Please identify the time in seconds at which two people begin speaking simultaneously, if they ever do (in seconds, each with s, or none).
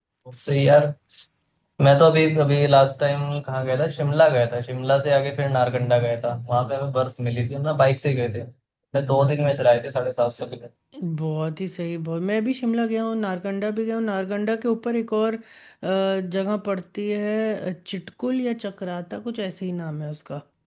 none